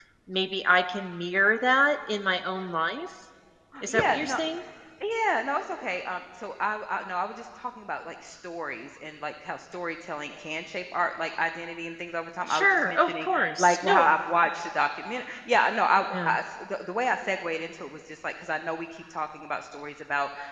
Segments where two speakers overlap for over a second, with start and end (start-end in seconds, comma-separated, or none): 12.5-14.1